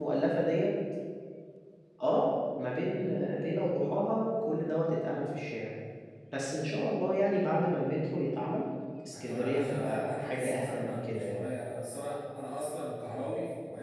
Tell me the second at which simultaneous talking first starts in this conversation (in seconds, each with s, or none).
9.1 s